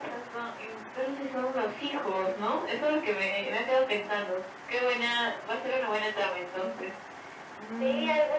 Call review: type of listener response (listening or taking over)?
taking over